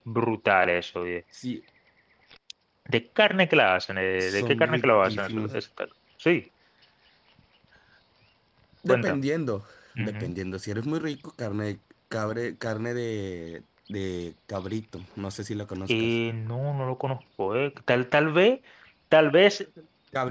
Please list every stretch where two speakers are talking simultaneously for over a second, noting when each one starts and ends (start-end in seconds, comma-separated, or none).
4.2-5.5